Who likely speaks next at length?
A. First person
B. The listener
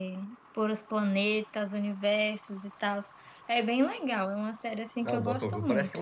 B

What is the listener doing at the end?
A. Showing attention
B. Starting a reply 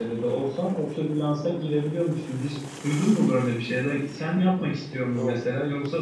A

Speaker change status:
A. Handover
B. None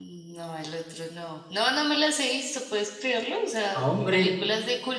B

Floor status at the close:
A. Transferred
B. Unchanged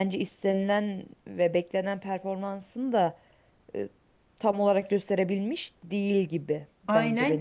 A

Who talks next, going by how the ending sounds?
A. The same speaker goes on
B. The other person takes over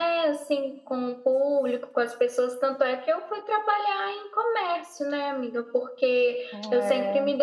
A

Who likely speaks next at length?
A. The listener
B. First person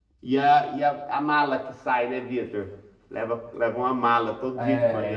A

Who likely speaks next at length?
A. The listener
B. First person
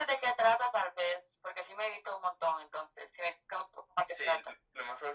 A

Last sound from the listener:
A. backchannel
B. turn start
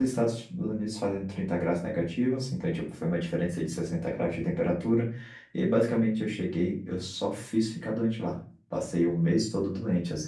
A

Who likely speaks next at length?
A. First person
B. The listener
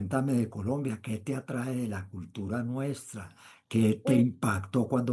A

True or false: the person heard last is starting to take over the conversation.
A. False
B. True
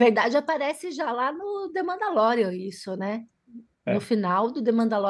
A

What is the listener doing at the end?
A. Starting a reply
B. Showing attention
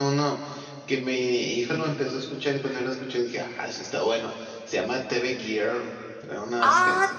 B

